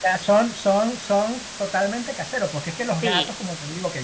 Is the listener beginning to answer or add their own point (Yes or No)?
No